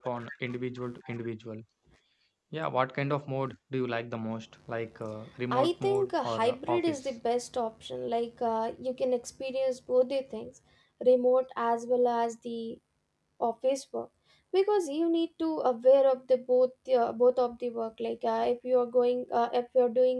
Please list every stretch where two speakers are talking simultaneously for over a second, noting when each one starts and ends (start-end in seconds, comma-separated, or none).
5.5-7.0